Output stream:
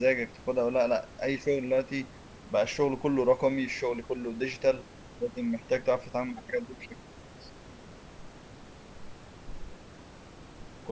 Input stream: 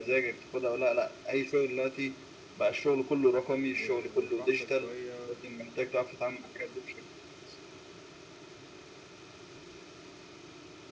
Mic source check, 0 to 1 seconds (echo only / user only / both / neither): echo only